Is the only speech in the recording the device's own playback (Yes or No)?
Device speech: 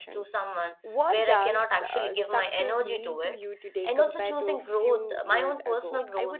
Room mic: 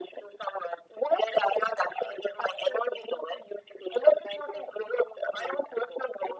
Yes